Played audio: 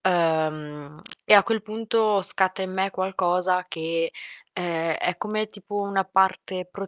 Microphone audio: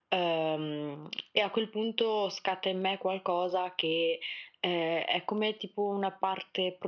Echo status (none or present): present